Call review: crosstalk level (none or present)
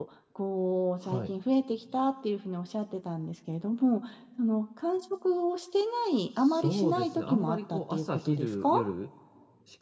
present